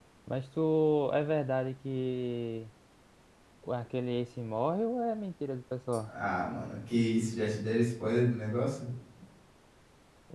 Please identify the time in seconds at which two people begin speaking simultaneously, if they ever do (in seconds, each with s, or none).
none